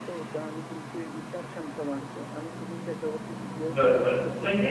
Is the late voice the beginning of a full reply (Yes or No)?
Yes